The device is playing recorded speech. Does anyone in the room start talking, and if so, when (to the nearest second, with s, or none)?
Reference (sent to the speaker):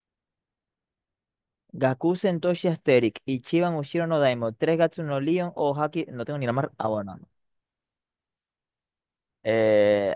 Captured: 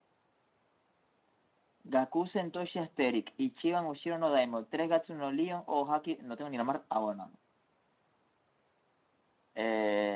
none